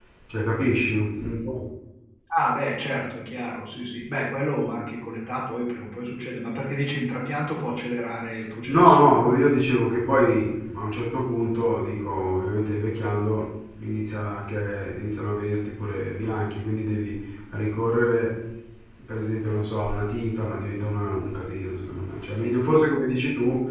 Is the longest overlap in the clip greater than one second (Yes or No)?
No